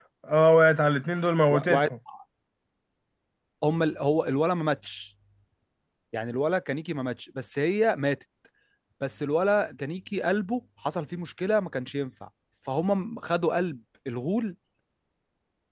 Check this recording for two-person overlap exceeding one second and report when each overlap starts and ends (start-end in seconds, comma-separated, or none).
none